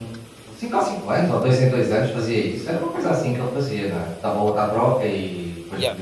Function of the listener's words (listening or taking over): taking over